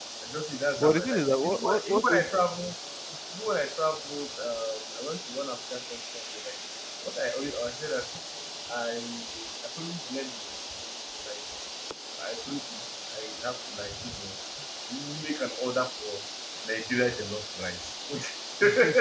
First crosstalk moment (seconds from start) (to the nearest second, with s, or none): 1 s